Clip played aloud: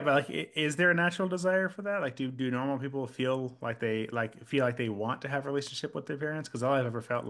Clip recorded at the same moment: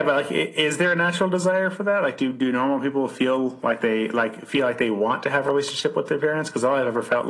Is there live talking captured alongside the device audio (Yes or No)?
No